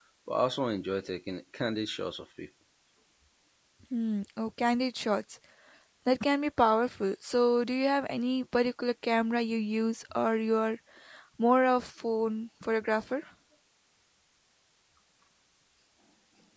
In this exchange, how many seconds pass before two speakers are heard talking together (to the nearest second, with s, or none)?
none